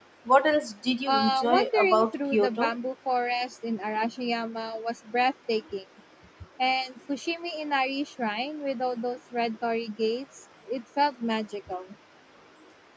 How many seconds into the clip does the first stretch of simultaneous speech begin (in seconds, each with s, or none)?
1.1 s